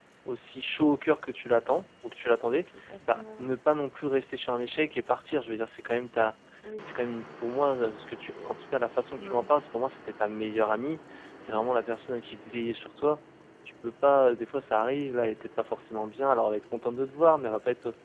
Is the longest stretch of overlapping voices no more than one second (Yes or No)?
Yes